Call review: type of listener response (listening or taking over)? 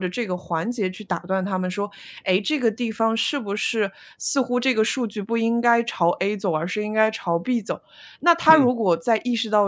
listening